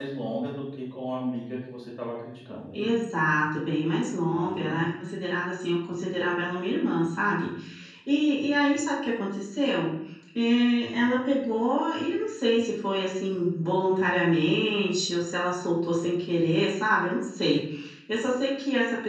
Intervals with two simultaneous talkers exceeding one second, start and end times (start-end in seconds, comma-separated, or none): none